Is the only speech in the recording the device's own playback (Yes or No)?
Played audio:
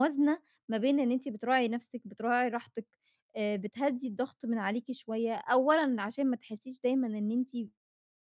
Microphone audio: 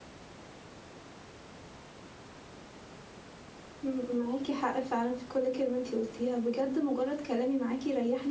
No